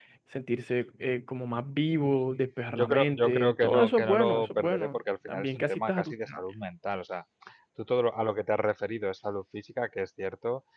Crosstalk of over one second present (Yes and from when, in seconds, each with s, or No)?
Yes, from 2.8 s